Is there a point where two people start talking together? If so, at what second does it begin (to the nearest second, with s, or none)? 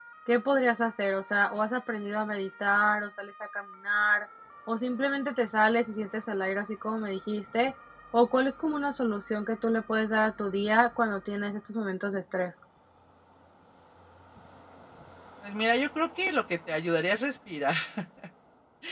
none